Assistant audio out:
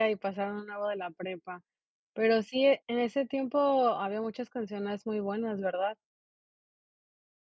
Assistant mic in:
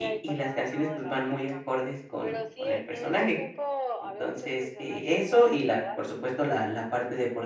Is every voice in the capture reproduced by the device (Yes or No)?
No